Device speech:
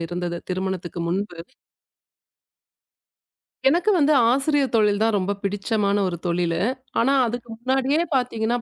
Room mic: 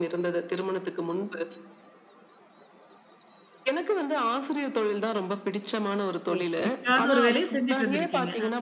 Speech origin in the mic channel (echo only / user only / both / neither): both